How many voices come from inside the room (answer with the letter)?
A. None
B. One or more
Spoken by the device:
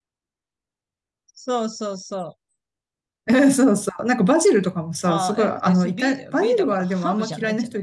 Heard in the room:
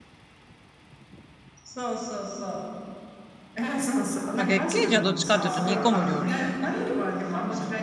B